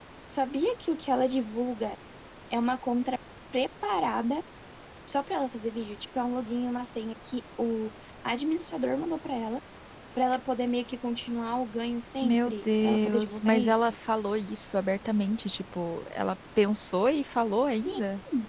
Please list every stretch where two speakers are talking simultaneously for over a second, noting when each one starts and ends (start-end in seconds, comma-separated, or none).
12.2-13.8